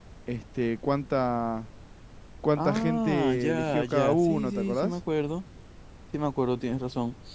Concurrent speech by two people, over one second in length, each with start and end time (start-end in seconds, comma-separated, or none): 2.6-4.9